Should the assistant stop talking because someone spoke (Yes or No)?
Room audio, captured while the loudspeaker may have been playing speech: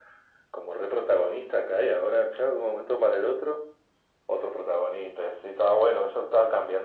No